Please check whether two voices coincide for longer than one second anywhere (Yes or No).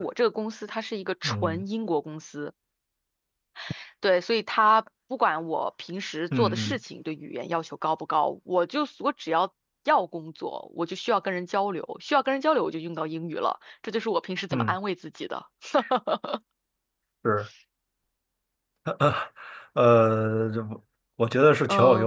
No